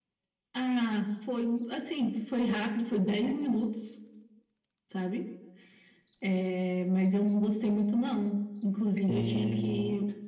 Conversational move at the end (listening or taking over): listening